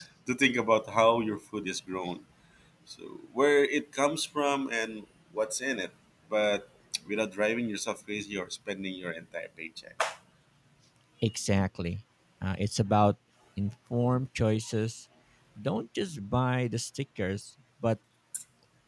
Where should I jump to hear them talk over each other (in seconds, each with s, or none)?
none